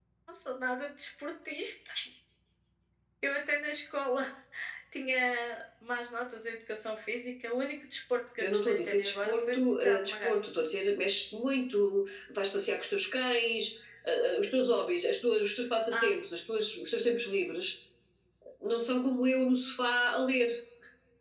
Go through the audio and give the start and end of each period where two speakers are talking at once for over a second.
8.4-10.4

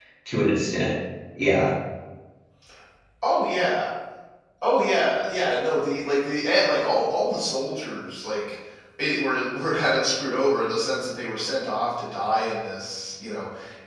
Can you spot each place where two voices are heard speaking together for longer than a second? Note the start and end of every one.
none

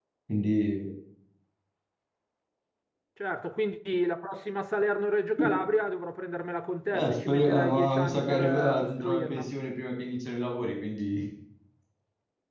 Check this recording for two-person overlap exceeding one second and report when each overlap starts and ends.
6.9-9.5

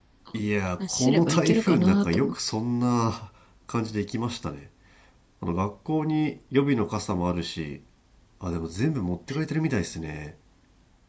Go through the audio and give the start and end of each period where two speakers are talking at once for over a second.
0.9-2.3

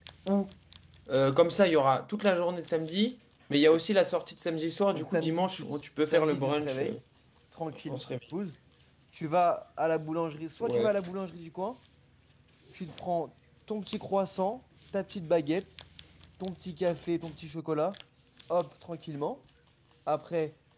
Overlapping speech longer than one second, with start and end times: 4.9-7.0

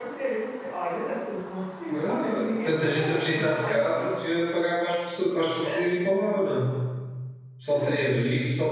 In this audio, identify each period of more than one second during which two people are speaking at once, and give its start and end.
1.9-4.2

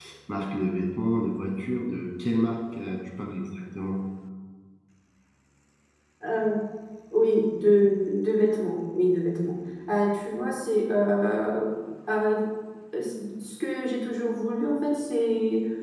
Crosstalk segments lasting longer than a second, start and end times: none

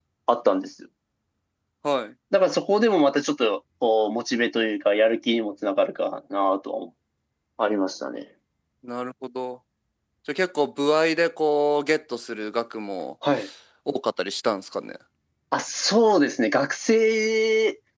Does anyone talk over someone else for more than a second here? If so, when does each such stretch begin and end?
none

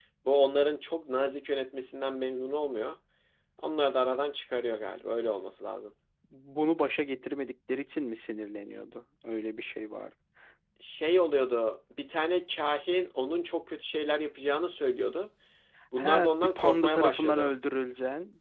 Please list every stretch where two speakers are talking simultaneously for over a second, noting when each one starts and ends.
16.0-17.5

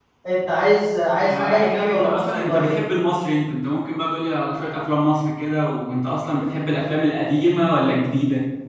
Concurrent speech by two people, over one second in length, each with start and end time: 1.3-2.7

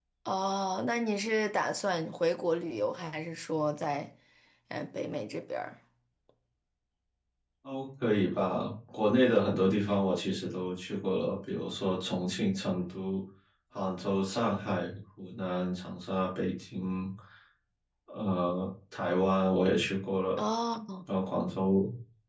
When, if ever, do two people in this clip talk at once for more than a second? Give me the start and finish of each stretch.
none

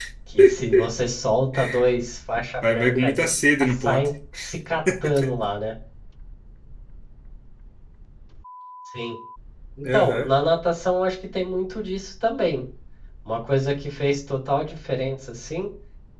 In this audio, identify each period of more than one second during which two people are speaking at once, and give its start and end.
2.6-4.1

